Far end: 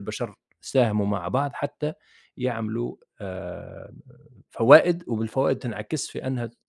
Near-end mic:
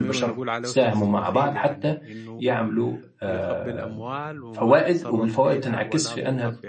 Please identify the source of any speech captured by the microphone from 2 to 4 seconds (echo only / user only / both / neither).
both